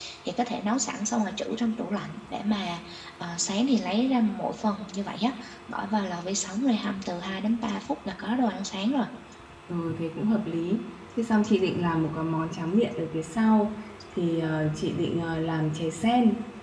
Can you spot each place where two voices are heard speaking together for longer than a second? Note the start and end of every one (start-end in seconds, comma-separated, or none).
none